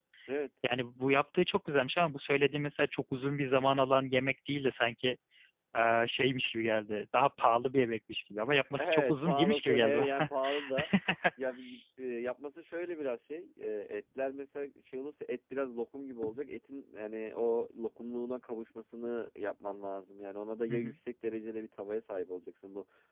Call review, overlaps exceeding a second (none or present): present